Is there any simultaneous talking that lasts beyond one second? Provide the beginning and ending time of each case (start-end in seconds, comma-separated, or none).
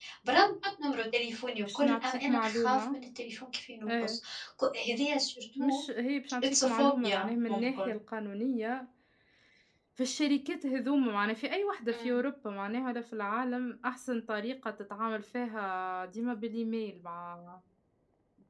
1.7-3.0, 6.4-7.9